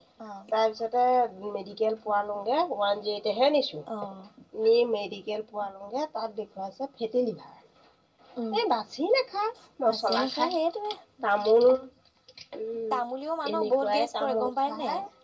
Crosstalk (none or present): present